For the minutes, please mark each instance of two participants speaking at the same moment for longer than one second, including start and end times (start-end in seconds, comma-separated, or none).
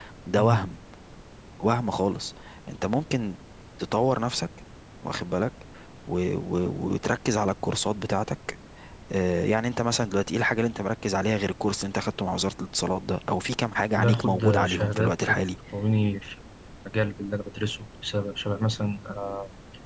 14.0-15.4